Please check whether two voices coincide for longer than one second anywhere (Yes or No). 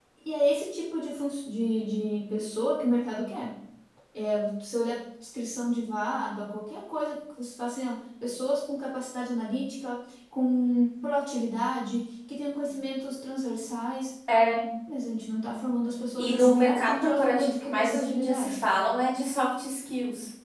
Yes